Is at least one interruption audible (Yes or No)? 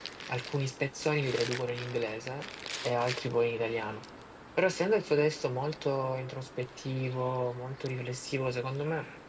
No